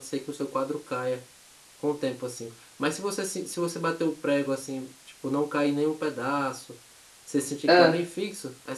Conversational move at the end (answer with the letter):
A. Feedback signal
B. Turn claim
A